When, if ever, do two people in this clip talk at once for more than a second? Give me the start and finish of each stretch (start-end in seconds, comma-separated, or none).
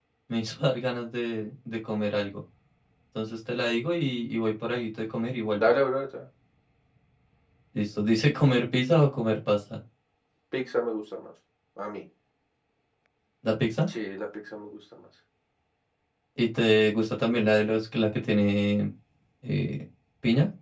none